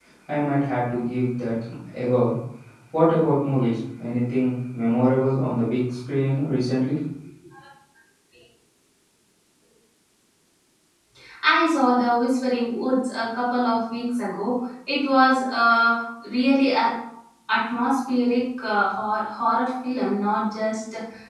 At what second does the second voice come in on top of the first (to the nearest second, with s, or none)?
none